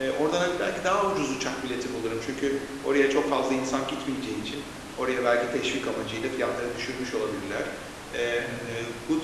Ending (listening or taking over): listening